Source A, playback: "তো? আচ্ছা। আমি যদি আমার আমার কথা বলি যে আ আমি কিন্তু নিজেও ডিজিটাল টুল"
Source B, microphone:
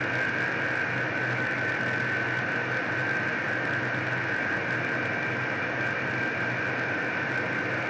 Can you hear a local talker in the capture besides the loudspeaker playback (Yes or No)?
No